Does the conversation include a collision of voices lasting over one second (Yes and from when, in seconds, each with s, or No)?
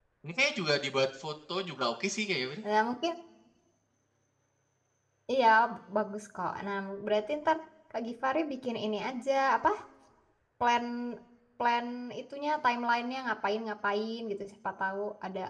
No